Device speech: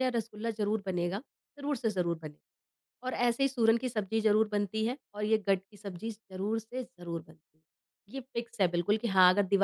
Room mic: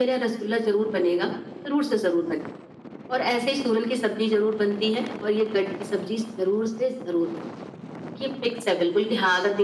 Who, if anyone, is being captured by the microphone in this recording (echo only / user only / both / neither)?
echo only